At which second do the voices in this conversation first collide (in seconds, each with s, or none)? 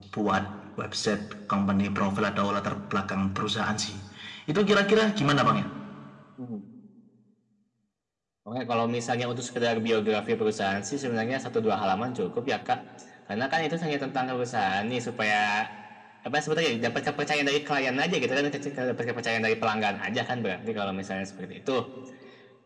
none